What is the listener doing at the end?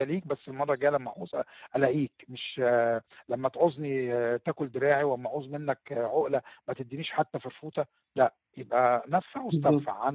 taking over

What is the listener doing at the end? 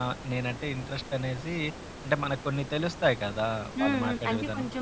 taking over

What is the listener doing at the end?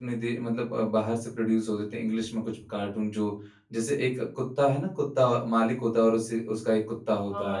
taking over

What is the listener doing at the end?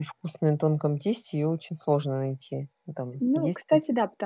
taking over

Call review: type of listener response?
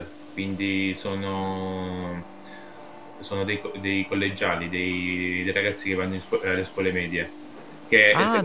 taking over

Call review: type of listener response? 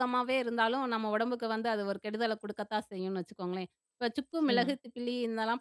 listening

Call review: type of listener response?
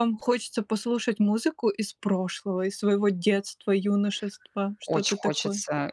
taking over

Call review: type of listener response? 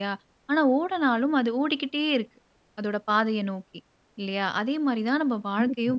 listening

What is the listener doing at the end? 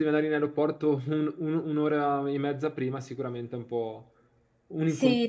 taking over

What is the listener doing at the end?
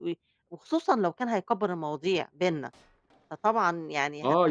taking over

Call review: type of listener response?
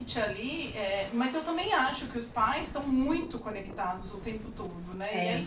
listening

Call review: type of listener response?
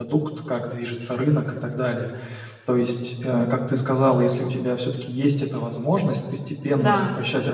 listening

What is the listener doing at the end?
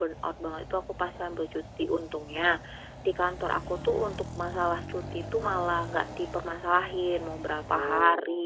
listening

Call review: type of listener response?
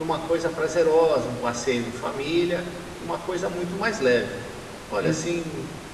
listening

